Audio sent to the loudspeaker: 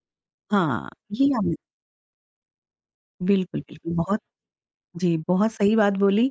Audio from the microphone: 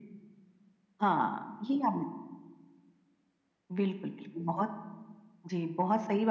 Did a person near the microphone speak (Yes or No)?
No